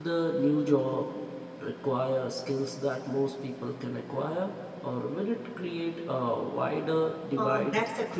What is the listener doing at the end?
taking over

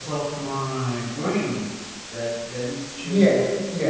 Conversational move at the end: taking over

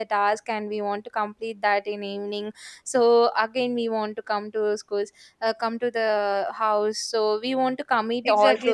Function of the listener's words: taking over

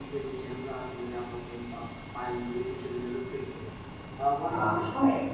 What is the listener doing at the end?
taking over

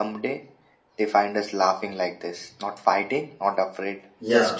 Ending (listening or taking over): taking over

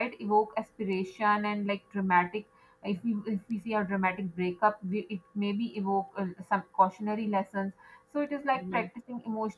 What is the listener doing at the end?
listening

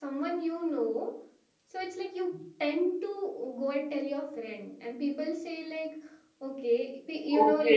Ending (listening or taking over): taking over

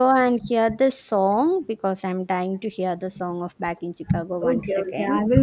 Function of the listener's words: taking over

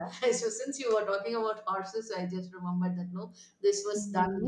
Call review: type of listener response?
taking over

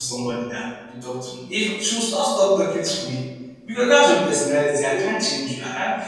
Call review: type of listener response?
listening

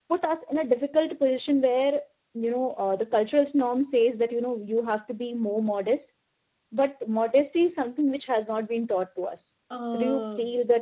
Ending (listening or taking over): taking over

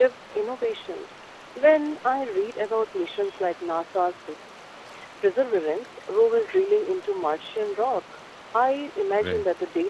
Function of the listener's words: listening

